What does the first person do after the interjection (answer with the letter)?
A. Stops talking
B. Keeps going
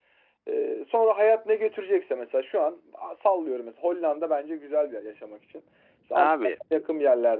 B